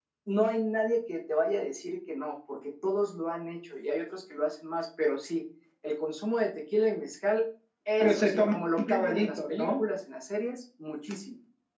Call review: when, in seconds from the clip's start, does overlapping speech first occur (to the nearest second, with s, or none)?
8 s